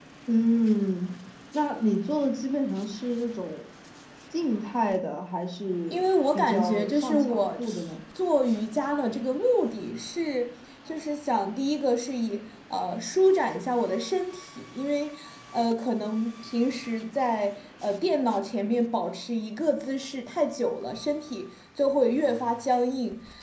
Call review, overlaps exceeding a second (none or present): present